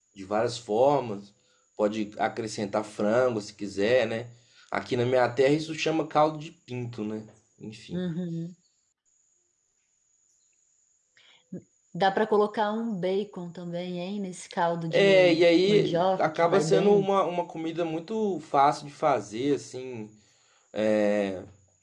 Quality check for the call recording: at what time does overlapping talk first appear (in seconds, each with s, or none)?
14.9 s